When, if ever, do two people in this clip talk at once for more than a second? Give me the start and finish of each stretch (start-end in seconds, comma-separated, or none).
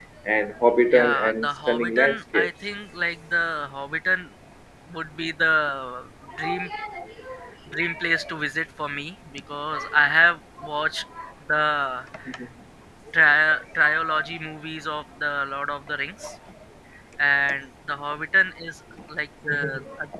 0.9-2.5